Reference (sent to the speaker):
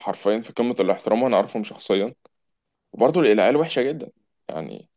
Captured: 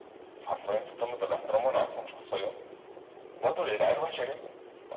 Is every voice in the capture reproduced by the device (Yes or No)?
Yes